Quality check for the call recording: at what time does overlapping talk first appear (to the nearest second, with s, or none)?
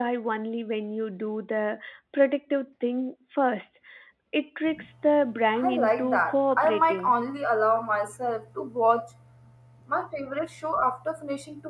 6 s